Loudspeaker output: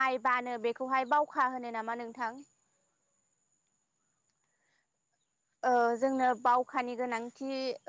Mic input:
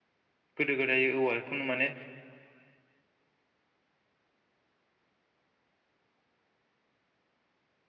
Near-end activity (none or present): present